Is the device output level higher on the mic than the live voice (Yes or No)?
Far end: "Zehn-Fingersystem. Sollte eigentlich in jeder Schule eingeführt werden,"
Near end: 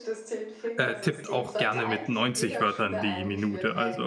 No